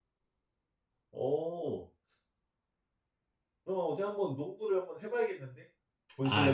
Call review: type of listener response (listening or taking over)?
taking over